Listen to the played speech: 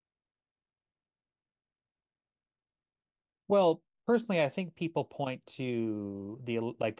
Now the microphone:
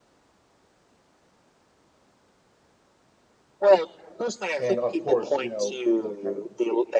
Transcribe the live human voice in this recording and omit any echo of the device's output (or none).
and of course, you know, the kind of